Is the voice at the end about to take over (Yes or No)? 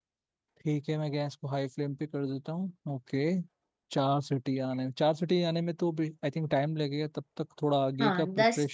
Yes